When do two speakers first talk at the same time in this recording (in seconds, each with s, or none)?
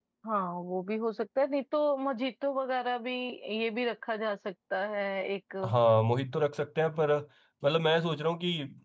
none